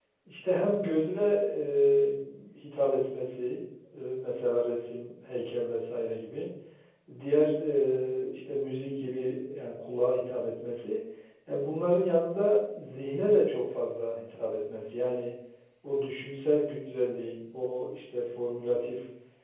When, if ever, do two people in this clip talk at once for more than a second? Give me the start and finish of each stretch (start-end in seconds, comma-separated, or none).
none